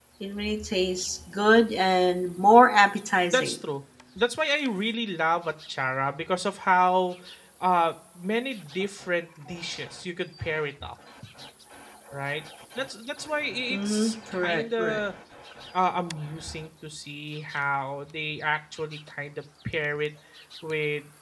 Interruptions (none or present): present